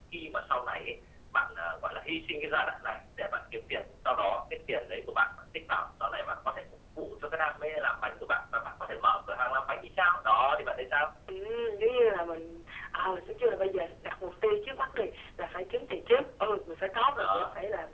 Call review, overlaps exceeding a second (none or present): none